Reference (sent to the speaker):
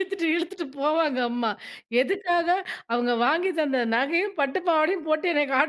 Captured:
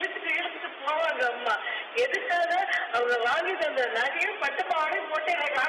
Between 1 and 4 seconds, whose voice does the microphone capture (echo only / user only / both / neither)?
echo only